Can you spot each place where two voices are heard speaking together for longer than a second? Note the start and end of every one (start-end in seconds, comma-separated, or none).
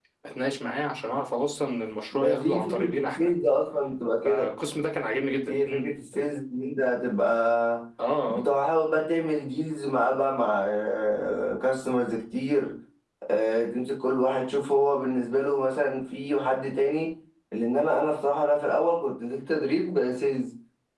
2.1-3.3